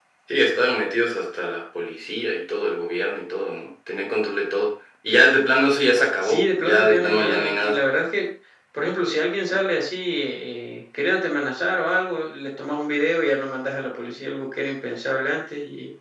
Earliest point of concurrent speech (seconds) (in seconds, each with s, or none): 6.2 s